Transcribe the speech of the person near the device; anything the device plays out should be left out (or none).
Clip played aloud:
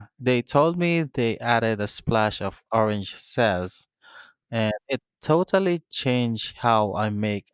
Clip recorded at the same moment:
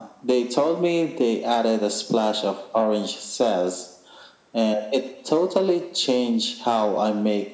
none